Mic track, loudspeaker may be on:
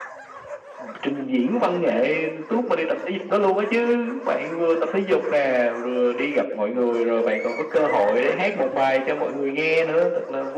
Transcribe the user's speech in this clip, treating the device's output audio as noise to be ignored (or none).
none